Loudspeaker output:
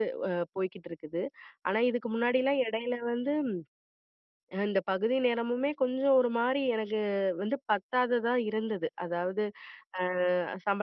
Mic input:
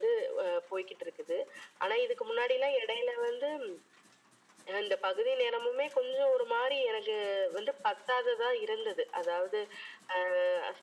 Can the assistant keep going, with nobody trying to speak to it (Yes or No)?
Yes